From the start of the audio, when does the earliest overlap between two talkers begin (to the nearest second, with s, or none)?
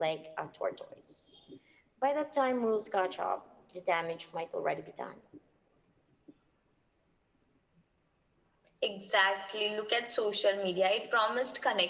none